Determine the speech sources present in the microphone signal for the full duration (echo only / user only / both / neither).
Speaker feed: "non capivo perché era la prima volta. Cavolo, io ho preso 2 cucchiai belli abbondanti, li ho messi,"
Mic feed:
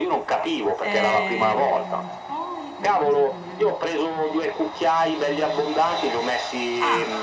both